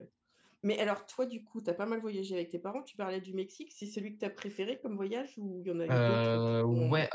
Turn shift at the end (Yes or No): Yes